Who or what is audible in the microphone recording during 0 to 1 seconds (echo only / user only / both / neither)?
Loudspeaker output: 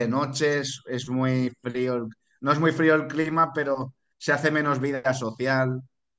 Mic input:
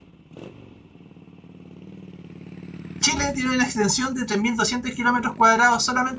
neither